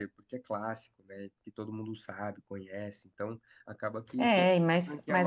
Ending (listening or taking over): taking over